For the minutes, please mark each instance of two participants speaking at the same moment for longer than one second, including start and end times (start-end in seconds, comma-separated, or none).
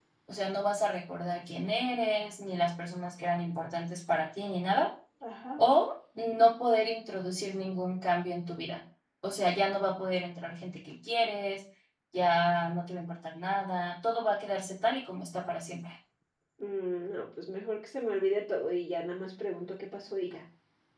none